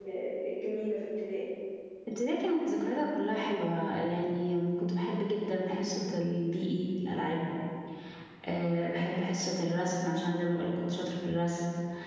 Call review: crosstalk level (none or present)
none